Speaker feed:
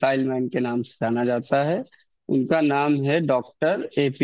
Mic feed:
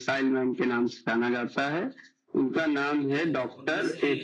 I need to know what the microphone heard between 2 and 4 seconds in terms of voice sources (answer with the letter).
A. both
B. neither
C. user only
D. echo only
A